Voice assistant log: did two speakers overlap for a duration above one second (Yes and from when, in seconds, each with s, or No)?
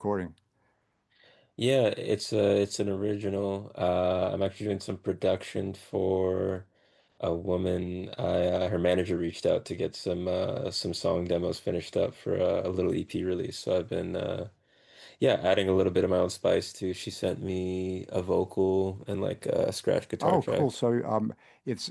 No